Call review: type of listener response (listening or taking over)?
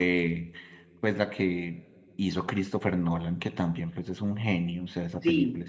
taking over